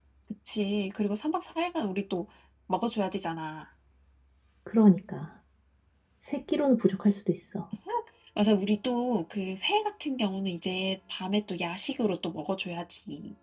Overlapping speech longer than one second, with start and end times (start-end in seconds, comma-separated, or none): none